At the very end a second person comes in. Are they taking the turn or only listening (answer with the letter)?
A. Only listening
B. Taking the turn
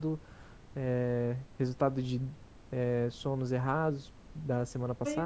B